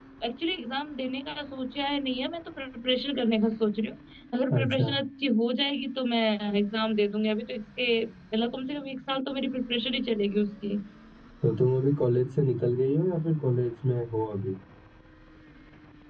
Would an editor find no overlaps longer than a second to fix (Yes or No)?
Yes